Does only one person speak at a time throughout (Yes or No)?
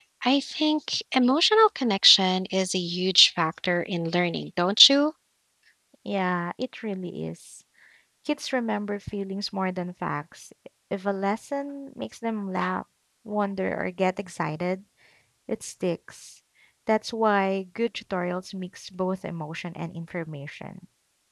Yes